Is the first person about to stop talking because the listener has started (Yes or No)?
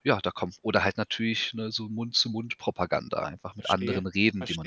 Yes